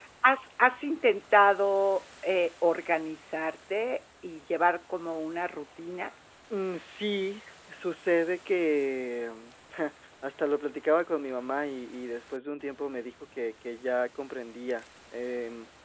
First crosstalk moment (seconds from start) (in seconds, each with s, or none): none